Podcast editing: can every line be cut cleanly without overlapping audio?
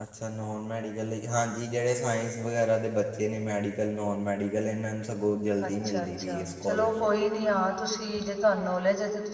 No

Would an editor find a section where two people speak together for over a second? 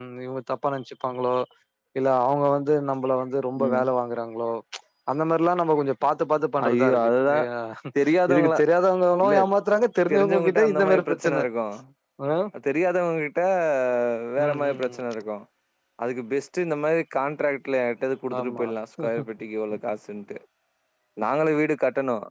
Yes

